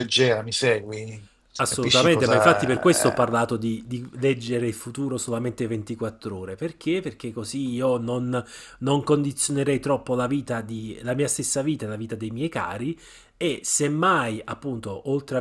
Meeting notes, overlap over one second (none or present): present